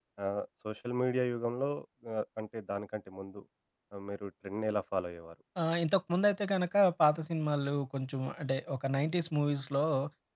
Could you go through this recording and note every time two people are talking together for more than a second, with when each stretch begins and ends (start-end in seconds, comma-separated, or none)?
none